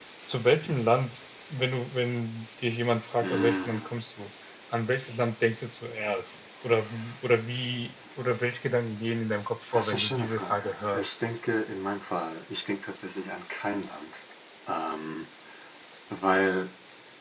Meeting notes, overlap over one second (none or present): present